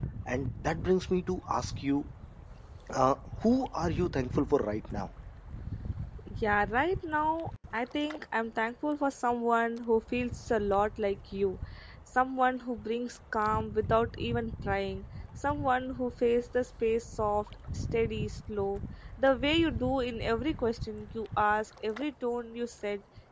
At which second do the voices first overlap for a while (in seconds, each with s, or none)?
none